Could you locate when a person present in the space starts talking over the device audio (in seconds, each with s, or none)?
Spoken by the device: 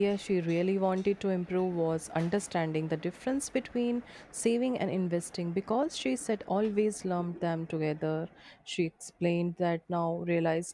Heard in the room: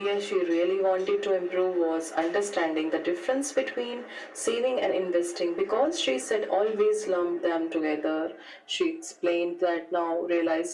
none